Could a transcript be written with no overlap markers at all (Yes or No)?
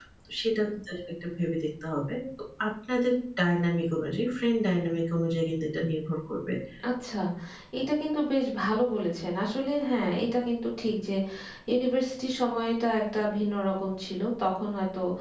Yes